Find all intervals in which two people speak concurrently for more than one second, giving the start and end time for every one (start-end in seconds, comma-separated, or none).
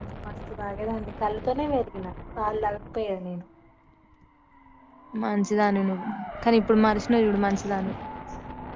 none